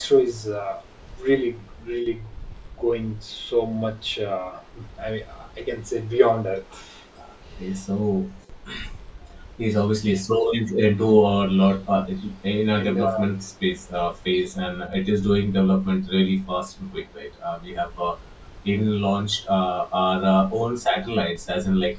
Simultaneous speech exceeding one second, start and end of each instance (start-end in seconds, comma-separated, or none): none